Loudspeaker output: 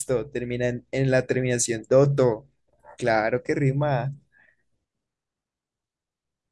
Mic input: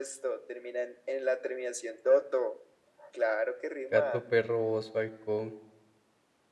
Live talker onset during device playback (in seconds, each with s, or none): 3.9 s